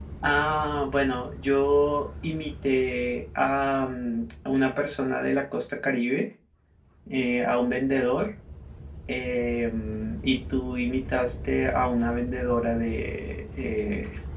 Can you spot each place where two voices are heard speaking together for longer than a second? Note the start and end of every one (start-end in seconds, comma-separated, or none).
none